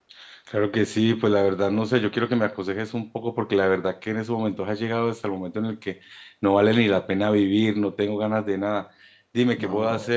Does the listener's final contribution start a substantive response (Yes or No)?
No